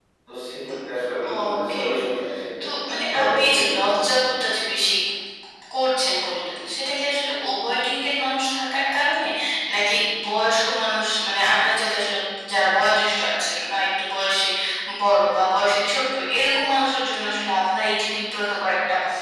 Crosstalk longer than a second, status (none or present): present